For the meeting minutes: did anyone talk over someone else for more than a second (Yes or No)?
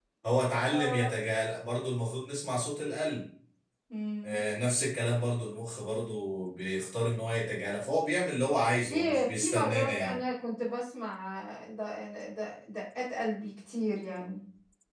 Yes